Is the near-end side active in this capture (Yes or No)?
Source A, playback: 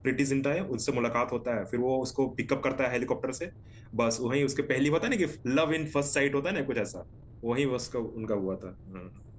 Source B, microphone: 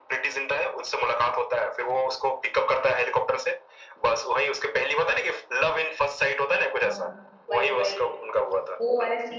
Yes